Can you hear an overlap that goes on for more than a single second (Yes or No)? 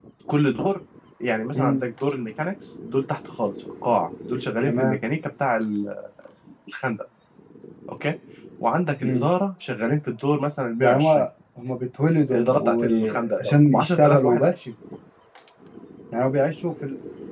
Yes